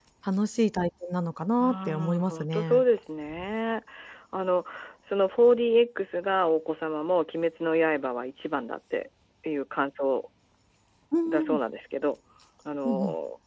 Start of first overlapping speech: 1.6 s

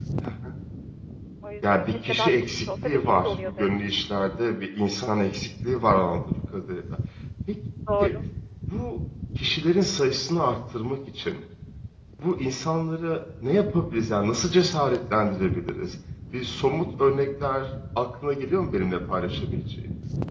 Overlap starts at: 1.6 s

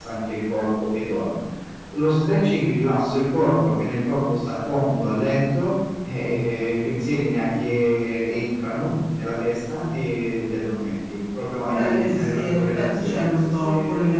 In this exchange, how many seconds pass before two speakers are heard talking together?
11.7 s

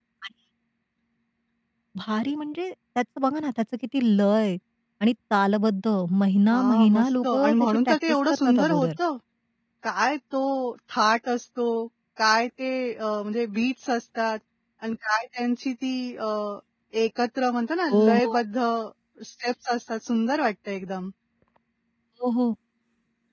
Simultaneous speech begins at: 6.5 s

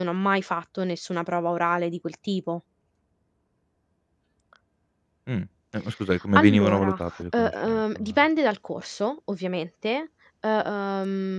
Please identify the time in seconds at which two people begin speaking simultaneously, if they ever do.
6.3 s

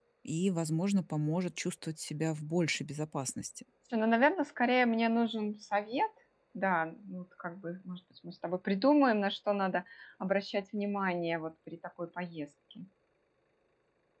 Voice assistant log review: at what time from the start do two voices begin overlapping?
none

